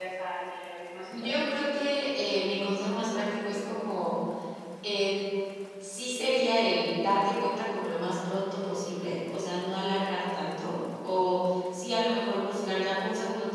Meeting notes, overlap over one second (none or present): none